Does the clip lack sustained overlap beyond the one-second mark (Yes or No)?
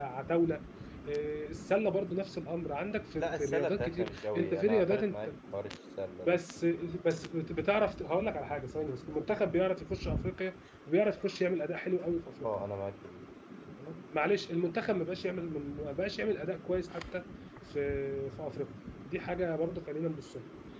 No